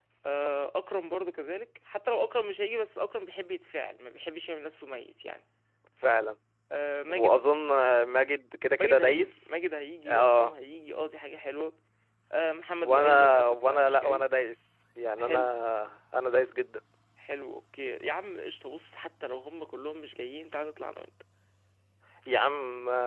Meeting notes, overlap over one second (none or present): present